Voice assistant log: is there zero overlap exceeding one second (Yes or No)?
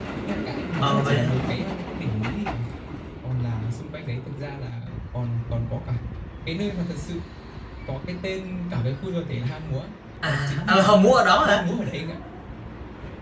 No